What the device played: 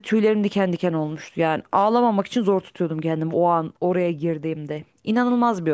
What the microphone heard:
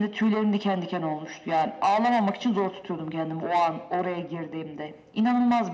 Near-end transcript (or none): none